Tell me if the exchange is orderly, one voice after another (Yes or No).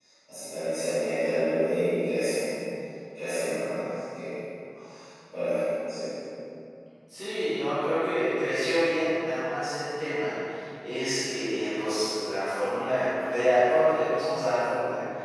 Yes